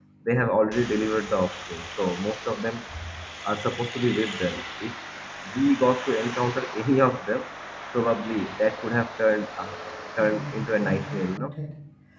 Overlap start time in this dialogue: 10.2 s

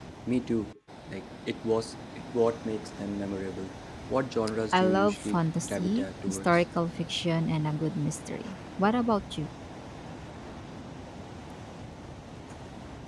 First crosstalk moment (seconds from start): 4.7 s

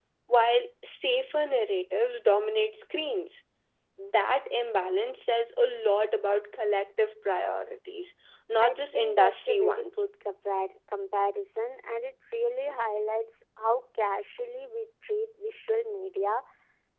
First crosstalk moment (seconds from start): 8.6 s

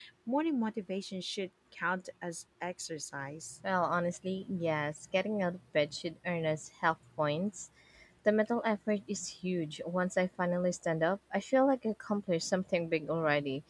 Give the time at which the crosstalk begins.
none

